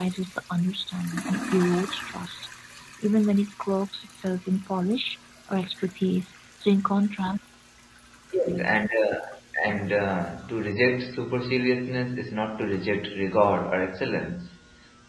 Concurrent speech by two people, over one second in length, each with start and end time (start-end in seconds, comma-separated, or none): none